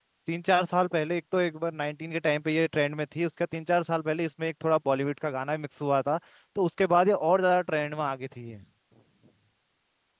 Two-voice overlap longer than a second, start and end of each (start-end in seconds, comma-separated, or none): none